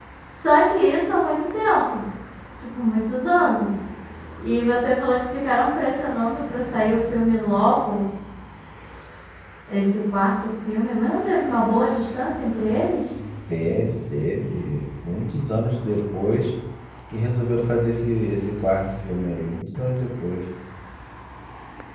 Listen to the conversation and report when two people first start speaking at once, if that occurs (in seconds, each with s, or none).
none